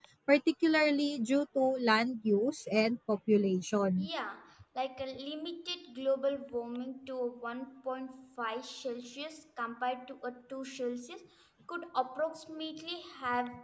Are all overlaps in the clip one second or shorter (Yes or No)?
Yes